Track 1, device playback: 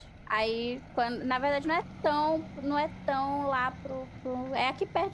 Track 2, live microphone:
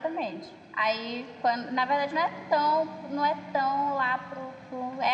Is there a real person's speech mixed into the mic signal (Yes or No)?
No